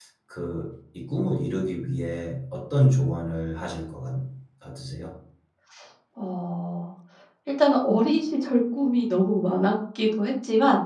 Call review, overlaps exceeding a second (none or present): none